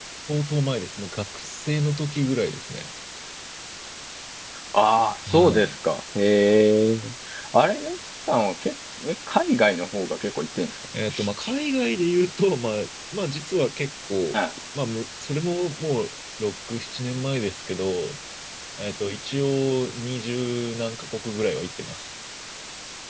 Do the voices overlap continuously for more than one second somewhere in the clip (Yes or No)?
No